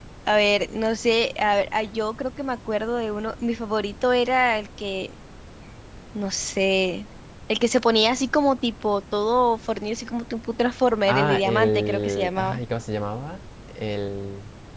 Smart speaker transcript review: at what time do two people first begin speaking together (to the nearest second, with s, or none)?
11 s